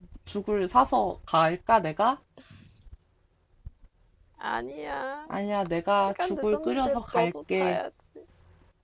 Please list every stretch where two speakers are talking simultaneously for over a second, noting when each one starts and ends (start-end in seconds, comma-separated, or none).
6.0-7.8